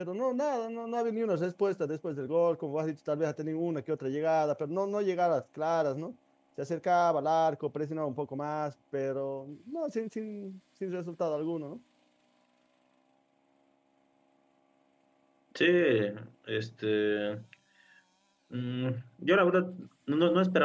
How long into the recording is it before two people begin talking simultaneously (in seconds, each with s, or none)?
none